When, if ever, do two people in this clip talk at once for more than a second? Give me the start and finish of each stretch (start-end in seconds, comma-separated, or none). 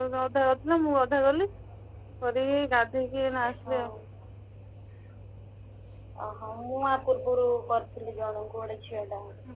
none